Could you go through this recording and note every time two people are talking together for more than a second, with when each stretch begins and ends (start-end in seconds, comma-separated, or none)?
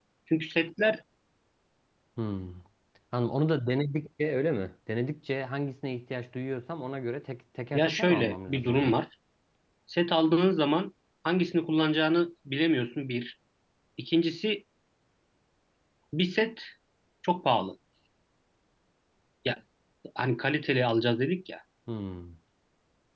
7.7-9.0